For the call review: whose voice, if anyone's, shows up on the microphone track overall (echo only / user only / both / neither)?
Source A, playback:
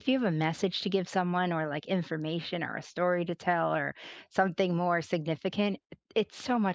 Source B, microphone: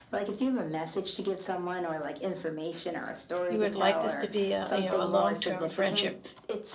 both